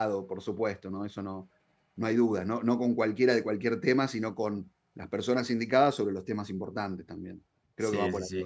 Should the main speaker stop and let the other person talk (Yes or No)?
Yes